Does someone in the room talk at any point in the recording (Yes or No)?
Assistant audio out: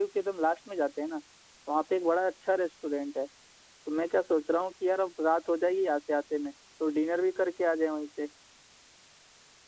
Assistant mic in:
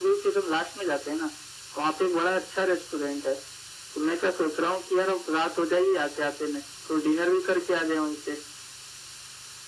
No